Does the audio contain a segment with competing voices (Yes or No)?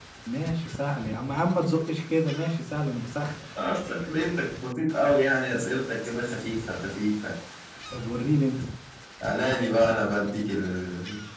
No